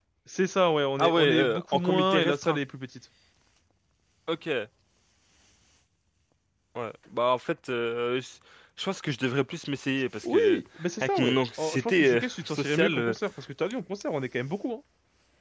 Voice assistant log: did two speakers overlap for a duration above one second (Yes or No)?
Yes